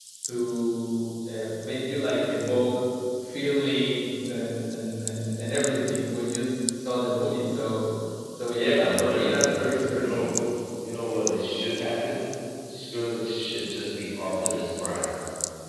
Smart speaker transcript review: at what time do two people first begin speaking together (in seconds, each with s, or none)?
8.7 s